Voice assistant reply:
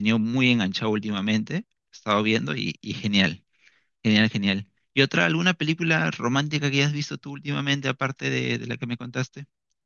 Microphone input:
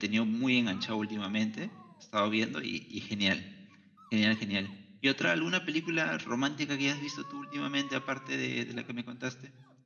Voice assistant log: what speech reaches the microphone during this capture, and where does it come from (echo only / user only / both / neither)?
echo only